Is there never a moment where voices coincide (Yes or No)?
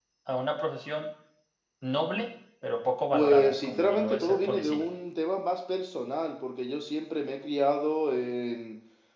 No